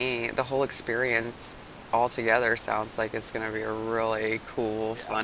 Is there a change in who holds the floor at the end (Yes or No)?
Yes